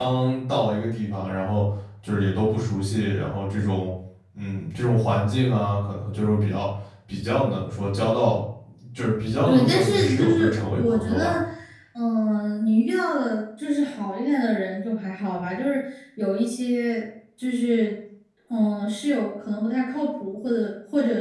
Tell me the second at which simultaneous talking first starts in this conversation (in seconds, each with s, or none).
9.5 s